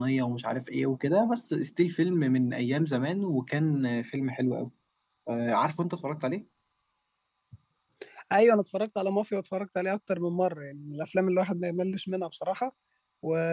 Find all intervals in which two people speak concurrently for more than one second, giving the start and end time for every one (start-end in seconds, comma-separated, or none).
none